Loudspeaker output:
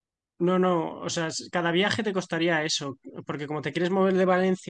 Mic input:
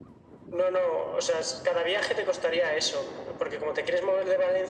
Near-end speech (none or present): none